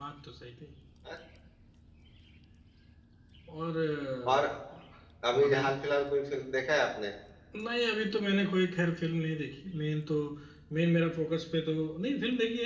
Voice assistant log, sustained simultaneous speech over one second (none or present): none